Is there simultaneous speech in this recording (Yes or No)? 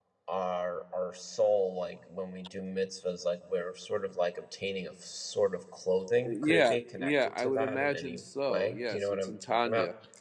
Yes